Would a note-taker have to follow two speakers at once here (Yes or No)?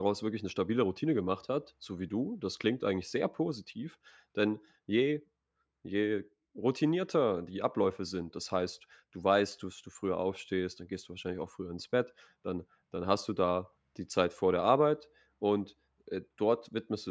No